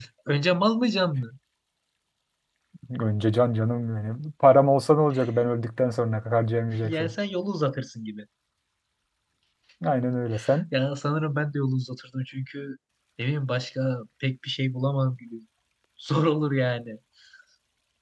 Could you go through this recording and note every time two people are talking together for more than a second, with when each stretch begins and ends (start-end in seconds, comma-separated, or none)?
none